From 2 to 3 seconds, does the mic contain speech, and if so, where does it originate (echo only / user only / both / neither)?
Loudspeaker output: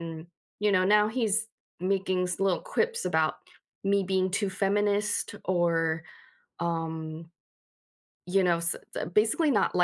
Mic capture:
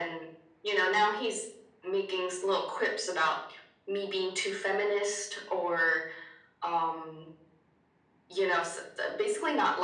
echo only